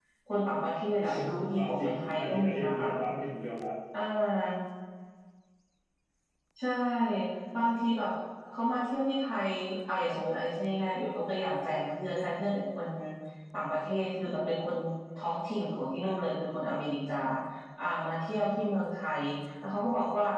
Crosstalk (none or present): present